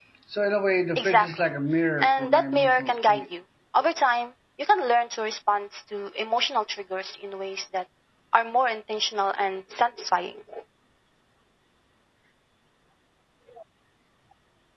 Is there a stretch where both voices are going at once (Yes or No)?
Yes